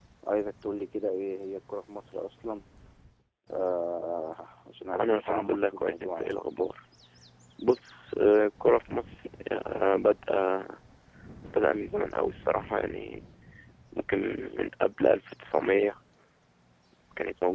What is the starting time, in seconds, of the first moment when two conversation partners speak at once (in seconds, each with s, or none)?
4.9 s